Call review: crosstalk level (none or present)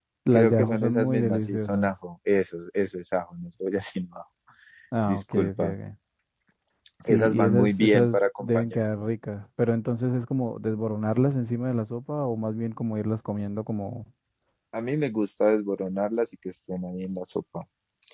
present